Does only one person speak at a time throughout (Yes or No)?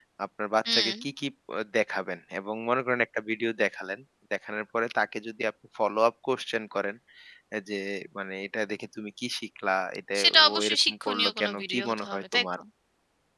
No